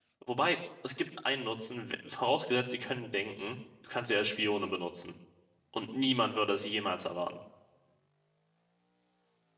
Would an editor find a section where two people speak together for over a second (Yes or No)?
No